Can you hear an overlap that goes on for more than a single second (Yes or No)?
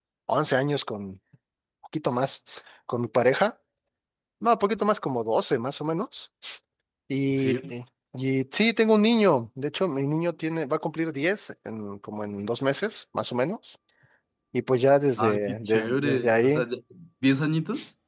Yes